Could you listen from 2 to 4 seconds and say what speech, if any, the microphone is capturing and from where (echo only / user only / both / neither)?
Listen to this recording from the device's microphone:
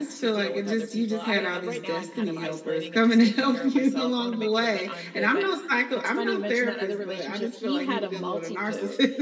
echo only